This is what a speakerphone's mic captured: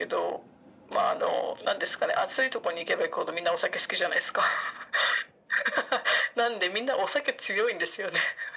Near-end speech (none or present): none